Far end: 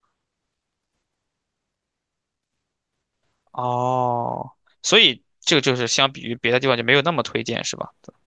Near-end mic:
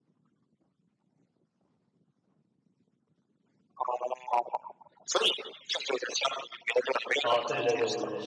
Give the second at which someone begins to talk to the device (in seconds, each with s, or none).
7.2 s